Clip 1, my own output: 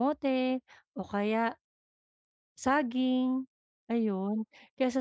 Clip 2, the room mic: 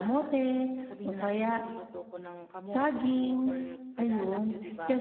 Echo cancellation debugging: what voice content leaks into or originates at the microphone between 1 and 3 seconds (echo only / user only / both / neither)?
both